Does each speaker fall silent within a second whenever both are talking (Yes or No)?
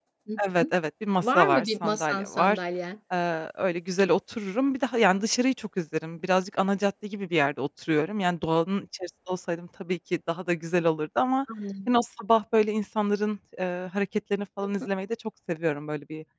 No